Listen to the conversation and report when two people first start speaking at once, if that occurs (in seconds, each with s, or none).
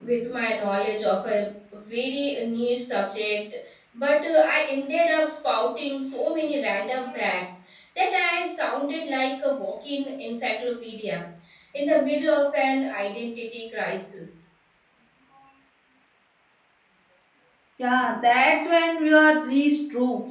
none